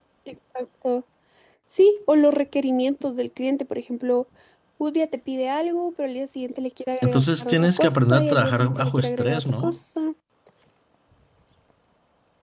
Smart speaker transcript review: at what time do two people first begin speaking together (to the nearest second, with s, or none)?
7 s